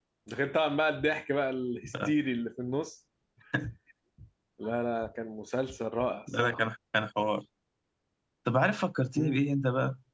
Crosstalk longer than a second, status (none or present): none